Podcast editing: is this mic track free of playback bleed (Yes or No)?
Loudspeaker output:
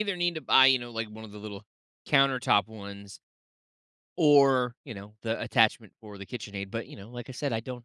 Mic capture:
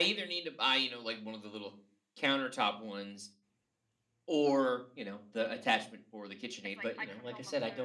No